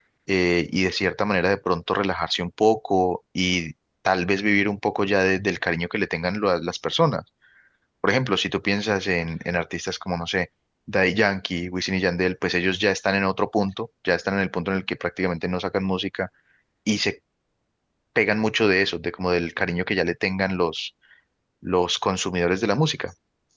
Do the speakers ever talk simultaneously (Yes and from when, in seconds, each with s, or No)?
No